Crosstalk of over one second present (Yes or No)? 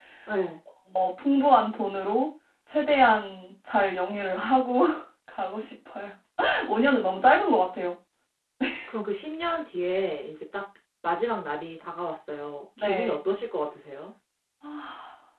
No